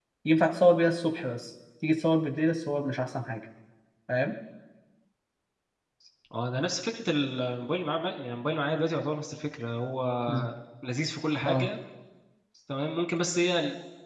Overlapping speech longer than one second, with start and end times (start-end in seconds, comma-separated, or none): none